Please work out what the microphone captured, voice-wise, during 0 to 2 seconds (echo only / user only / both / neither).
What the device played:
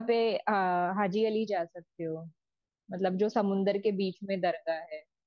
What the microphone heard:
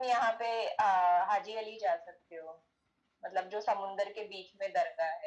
echo only